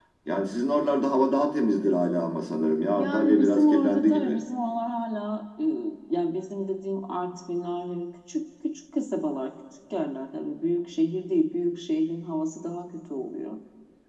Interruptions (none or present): present